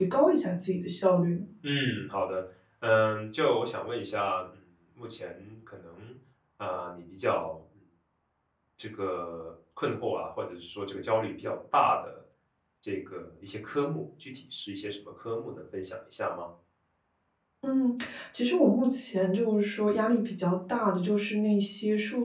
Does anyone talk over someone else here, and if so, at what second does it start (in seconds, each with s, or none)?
none